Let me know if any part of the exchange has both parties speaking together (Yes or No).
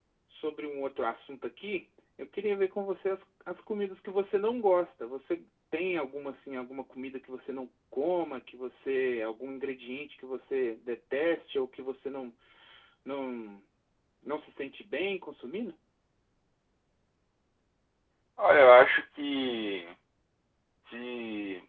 No